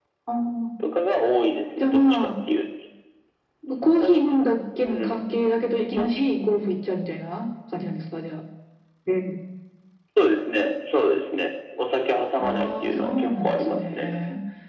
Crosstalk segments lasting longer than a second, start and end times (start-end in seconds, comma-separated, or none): 12.4-14.2